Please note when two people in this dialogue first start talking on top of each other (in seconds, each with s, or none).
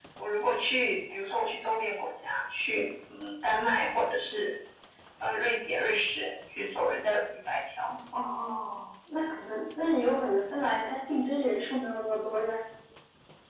none